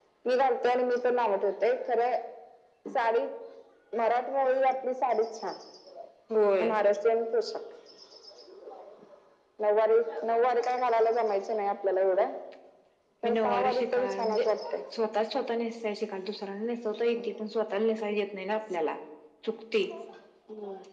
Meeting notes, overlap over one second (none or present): present